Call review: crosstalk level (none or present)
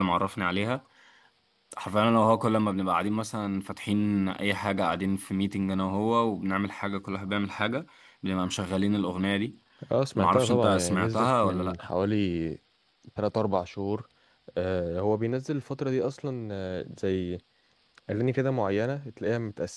present